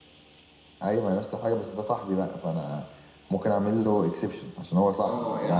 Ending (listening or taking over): taking over